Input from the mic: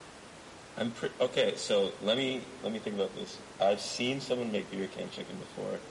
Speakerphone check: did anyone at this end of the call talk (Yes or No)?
No